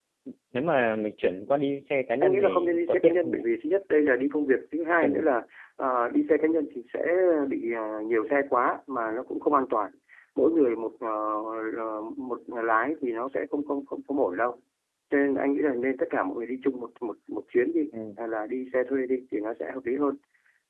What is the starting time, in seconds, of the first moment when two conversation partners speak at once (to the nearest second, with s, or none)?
2 s